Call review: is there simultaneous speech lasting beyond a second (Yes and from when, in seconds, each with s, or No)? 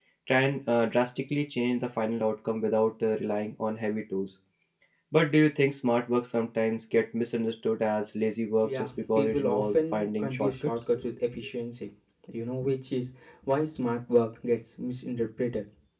Yes, from 8.6 s